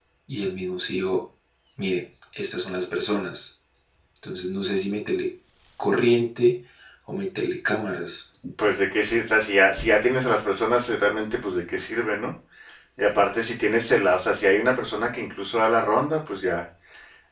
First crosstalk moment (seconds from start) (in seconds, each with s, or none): none